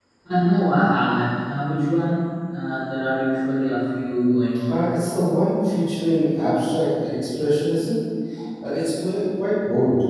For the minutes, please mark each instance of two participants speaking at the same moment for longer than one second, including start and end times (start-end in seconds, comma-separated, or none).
none